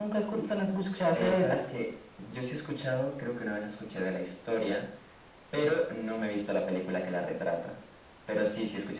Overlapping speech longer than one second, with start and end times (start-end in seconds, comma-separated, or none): none